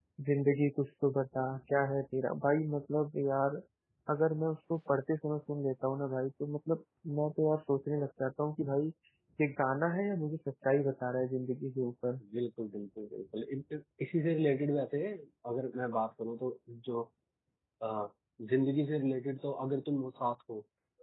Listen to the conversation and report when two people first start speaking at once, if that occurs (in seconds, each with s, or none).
none